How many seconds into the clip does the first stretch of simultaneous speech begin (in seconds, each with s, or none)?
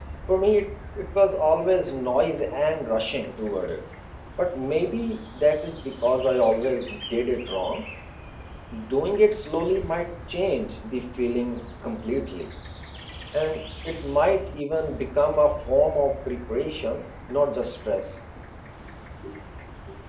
none